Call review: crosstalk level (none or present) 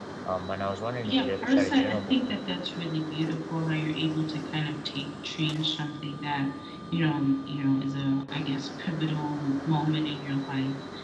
present